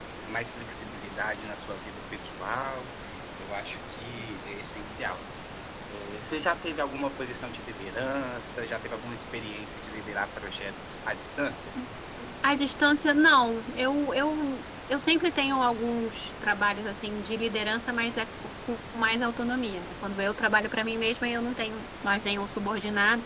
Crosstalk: none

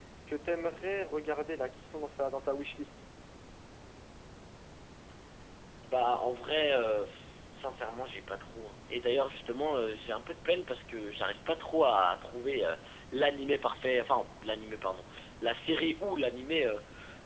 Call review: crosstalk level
none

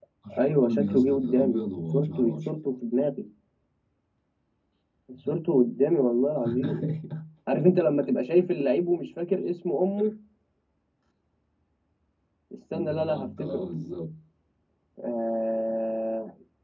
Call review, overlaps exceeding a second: present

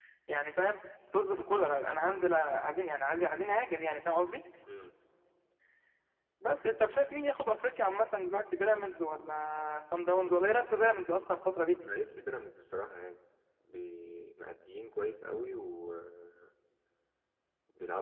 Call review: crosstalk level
none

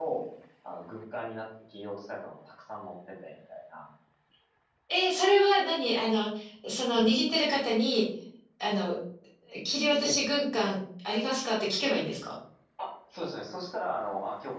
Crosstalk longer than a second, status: none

